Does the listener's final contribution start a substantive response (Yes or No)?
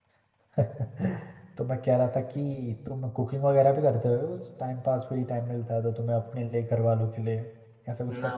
Yes